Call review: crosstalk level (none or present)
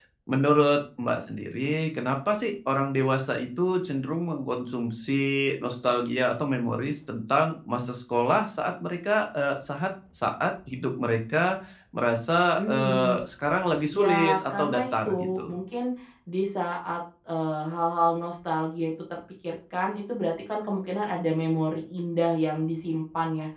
present